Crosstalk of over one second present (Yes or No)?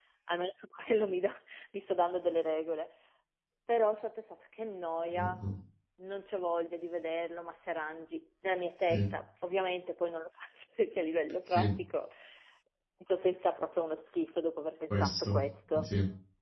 No